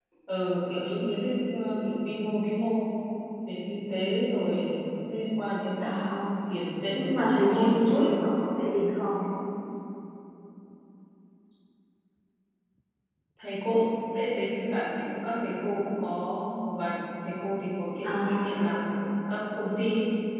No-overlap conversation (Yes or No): No